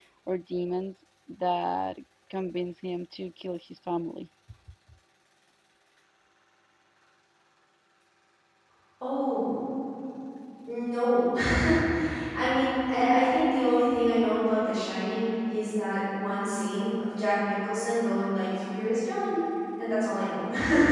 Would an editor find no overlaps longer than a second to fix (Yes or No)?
Yes